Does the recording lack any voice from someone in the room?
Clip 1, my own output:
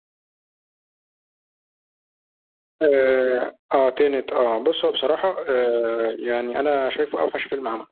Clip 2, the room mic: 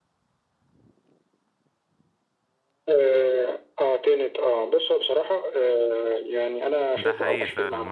No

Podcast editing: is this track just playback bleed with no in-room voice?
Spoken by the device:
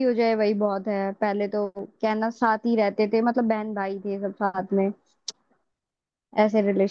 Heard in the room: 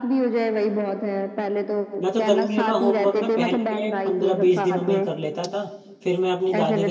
No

